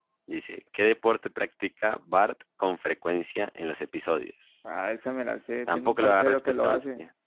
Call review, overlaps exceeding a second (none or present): present